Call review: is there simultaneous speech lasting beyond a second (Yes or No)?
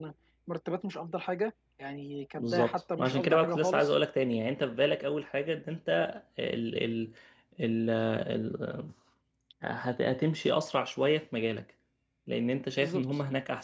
Yes